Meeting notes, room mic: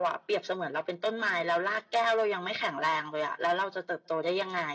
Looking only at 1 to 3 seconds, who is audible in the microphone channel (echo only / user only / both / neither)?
echo only